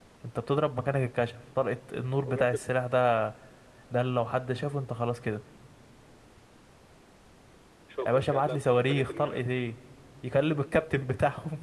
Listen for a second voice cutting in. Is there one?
Yes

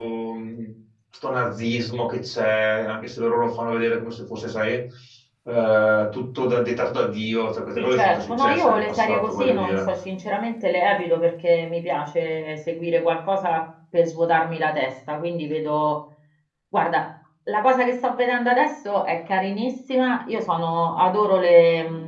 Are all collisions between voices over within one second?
No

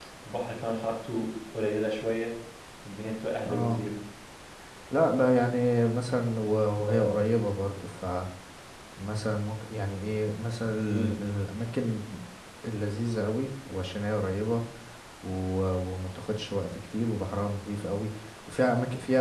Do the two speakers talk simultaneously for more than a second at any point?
No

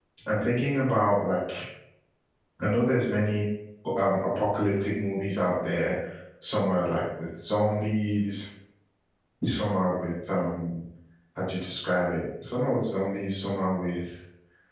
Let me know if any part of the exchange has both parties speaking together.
No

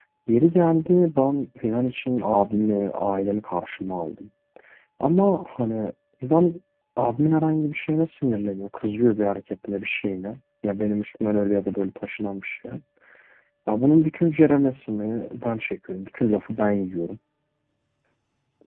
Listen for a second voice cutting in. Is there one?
No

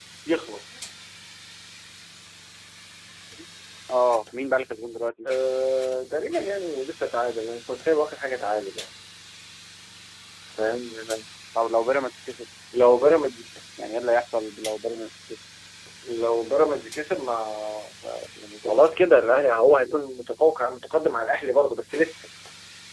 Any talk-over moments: No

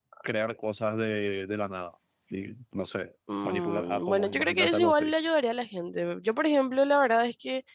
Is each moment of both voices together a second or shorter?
No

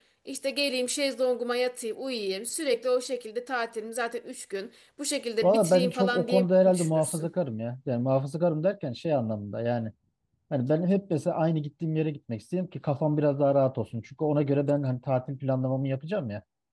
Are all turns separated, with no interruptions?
No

